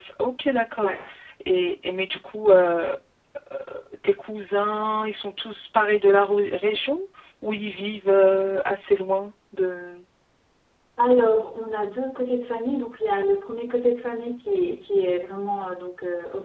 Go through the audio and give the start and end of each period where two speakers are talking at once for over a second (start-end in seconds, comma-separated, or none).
none